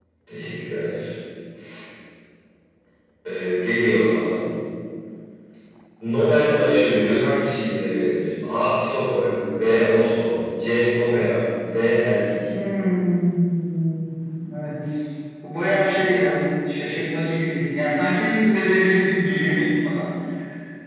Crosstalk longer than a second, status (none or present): none